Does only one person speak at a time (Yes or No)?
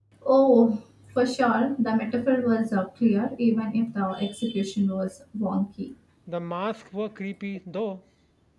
Yes